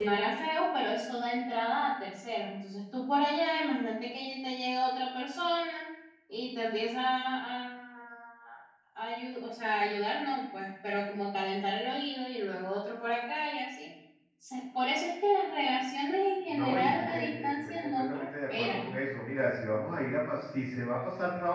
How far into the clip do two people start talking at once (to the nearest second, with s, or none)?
17 s